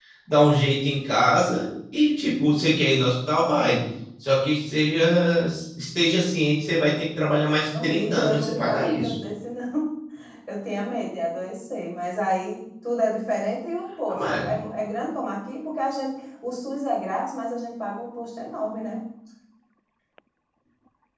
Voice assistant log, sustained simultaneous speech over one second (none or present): present